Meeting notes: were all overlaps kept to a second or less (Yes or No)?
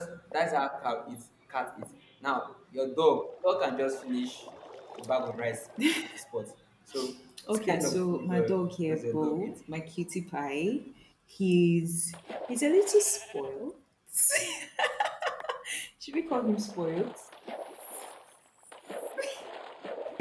No